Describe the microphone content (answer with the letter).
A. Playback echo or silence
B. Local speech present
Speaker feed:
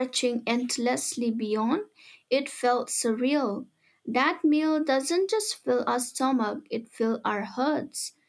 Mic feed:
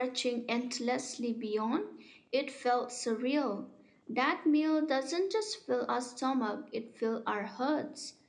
A